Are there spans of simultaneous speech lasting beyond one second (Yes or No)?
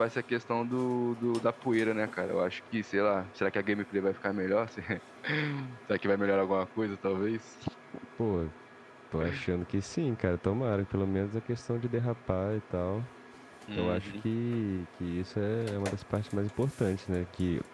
No